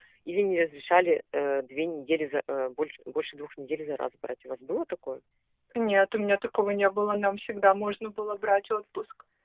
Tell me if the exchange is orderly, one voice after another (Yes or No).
Yes